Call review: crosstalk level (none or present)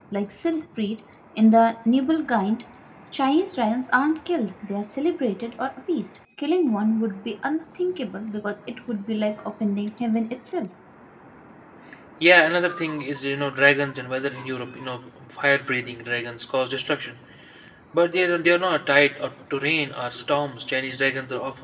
none